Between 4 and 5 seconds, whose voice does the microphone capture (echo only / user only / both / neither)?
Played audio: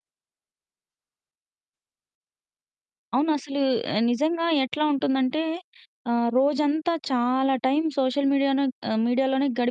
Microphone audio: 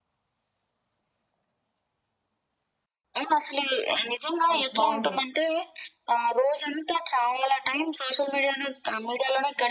both